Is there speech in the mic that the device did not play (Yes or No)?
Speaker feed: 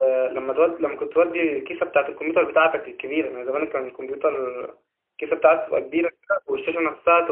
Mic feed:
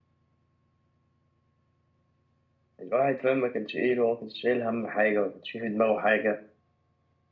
Yes